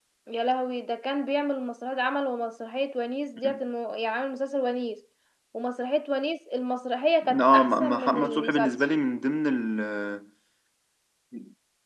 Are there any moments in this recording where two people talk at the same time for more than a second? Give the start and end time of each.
7.4-8.8

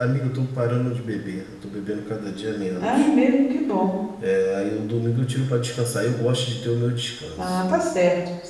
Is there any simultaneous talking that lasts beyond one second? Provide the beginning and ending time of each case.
none

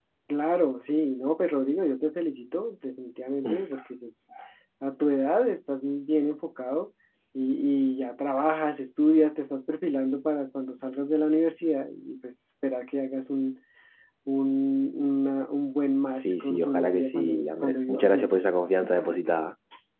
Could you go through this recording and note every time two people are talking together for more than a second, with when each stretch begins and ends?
16.2-18.5

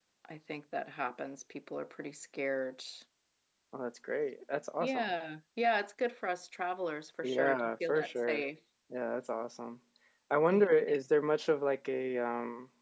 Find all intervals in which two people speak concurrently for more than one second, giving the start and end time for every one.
7.2-8.4

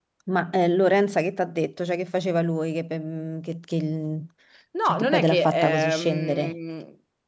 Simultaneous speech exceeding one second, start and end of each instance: 4.8-6.5

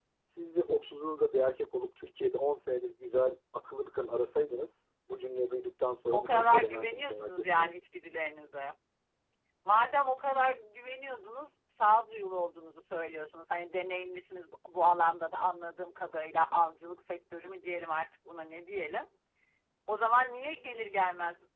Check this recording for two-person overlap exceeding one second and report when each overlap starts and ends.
6.1-7.7

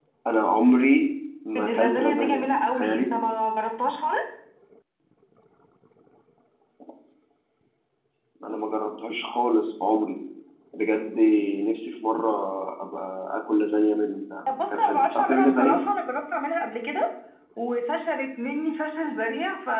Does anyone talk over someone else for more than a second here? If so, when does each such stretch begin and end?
1.6-3.1, 14.5-15.8

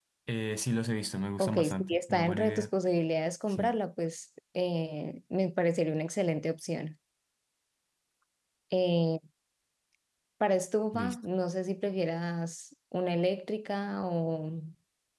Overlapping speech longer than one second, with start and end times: 1.4-2.7

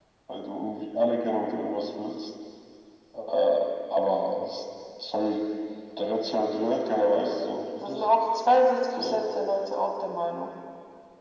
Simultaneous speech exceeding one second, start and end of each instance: none

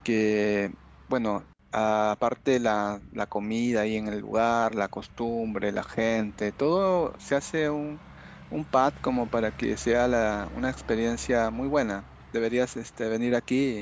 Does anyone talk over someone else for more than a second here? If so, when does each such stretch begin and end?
none

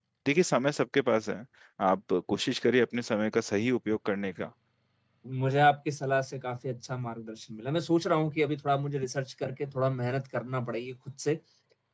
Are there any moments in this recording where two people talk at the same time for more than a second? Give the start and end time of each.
none

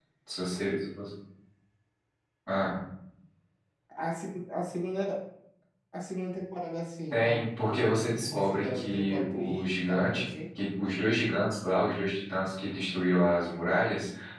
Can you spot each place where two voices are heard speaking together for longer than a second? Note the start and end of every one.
7.1-10.3

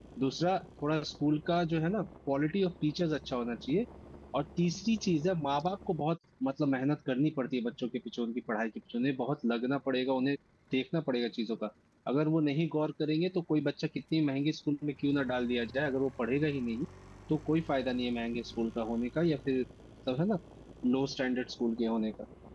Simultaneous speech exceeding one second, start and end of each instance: none

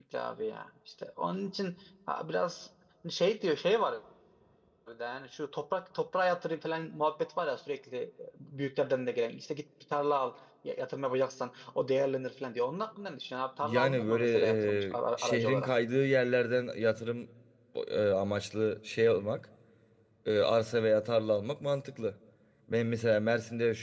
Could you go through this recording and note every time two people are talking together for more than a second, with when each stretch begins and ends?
13.6-15.7

